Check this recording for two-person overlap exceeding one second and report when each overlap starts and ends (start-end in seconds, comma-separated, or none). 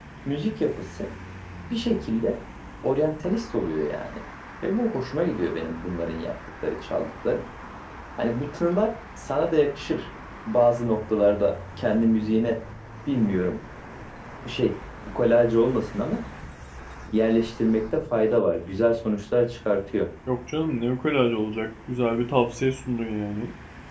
none